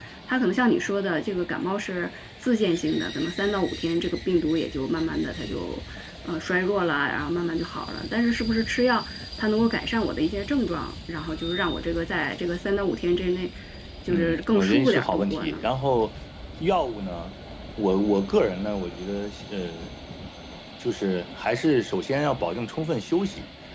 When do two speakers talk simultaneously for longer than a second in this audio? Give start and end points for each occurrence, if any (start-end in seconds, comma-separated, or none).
14.1-15.6